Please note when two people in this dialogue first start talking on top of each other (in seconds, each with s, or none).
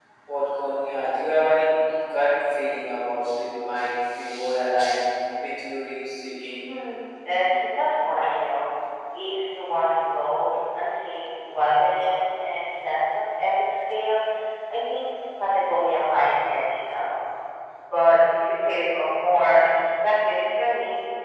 none